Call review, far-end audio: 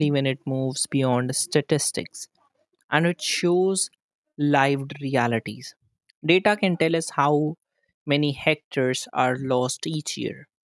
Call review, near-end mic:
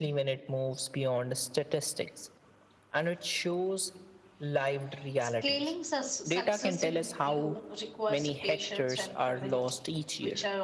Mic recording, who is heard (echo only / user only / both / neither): both